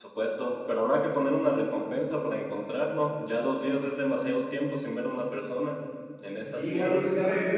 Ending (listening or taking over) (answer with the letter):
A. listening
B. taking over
B